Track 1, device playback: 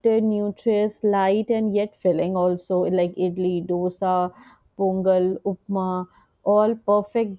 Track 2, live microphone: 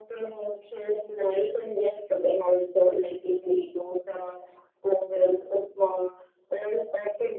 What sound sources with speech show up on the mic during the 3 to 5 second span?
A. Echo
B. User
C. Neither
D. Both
A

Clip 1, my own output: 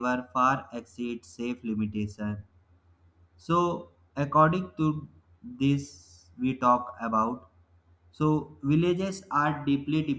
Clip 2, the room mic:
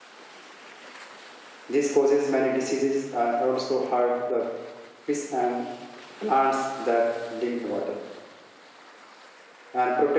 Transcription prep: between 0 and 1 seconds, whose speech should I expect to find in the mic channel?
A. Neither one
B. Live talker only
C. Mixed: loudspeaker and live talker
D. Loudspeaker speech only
A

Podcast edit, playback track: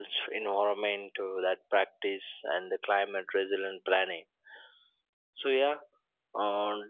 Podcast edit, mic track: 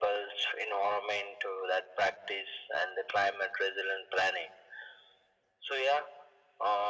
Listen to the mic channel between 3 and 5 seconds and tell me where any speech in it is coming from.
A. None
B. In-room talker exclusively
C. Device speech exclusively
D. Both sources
C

